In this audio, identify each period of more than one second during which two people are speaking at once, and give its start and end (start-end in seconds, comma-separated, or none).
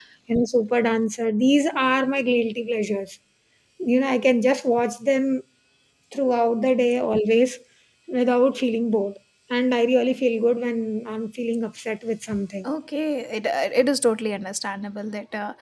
none